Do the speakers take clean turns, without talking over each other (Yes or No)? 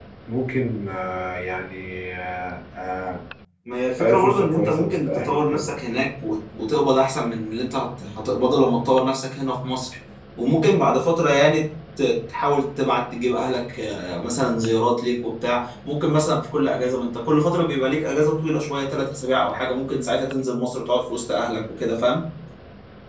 No